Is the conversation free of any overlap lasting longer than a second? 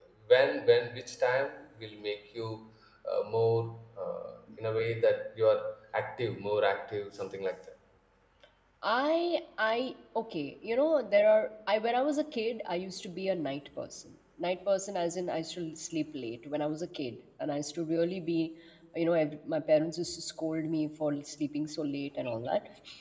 Yes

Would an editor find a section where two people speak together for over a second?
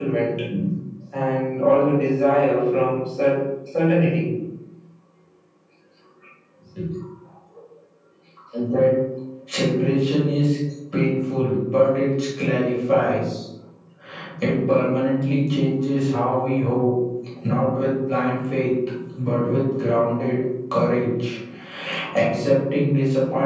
No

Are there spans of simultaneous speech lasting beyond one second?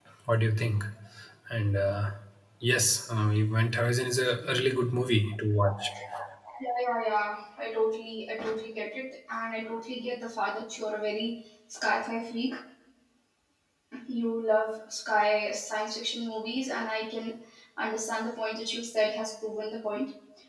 No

